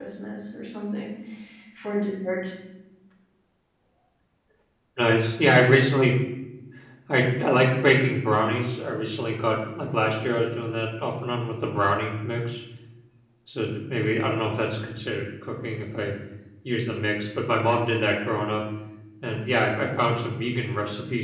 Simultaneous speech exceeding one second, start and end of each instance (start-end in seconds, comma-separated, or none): none